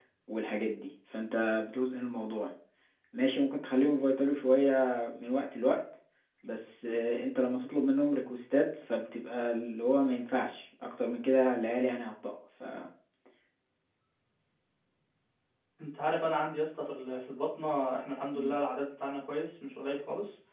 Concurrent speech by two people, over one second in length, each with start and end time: none

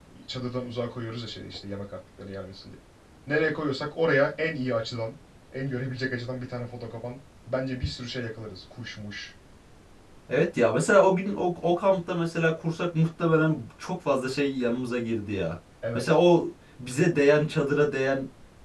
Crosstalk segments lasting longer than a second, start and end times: none

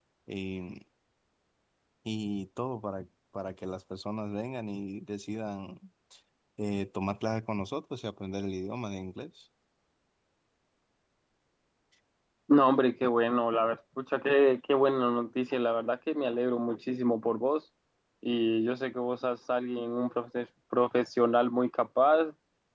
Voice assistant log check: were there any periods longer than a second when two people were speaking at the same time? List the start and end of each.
none

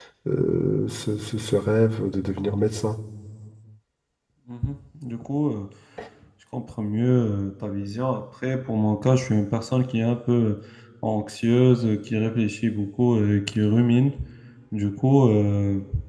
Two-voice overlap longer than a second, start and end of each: none

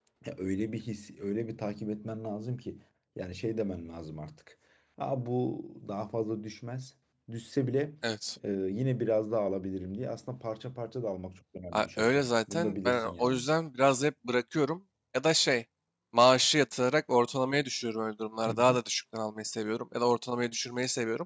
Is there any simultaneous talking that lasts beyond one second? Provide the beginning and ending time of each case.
11.7-13.4

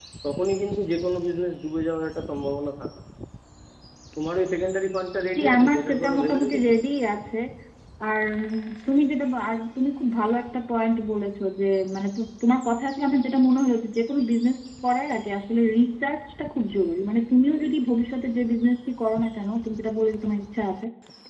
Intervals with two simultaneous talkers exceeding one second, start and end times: 5.4-6.7

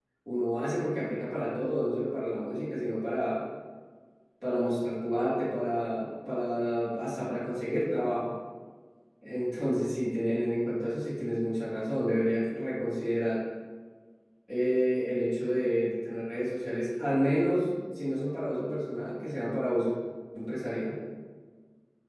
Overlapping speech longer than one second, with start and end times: none

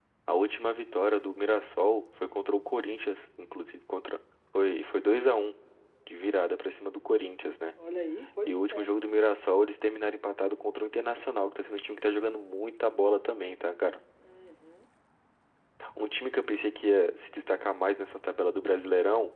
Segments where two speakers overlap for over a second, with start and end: none

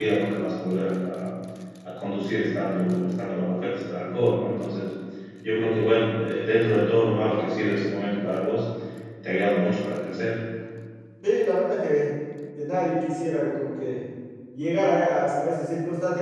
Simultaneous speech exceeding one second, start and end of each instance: none

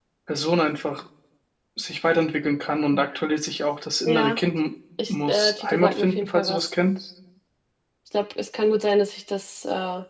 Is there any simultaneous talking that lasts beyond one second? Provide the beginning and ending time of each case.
5.1-6.7

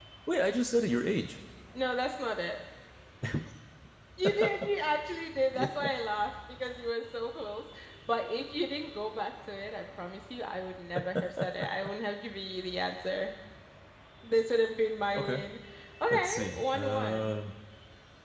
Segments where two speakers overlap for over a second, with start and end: 16.1-17.4

